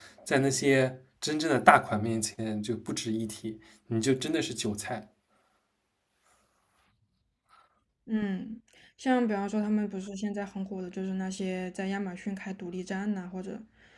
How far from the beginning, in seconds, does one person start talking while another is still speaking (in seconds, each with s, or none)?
none